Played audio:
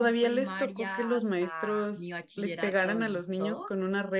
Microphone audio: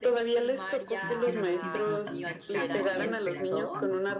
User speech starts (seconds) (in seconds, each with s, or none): 1.0 s